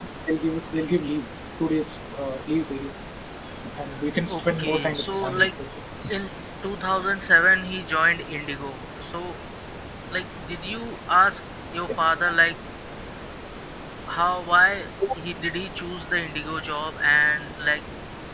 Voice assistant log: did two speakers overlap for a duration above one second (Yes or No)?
Yes